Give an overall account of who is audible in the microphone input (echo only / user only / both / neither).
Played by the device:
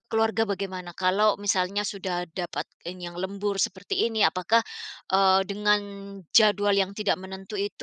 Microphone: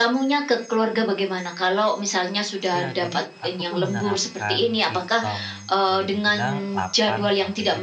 both